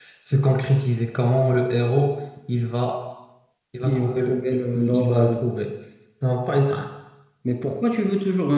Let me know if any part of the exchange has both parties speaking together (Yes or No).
Yes